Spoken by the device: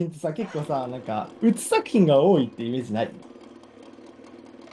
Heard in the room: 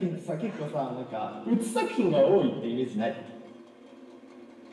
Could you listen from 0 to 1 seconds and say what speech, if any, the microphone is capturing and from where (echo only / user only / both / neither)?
echo only